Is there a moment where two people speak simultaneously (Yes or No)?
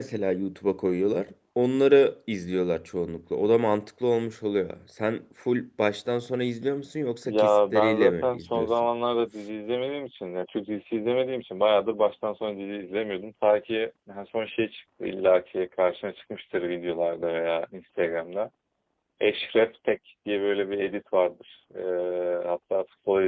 Yes